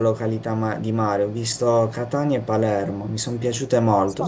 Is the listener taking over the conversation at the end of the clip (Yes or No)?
No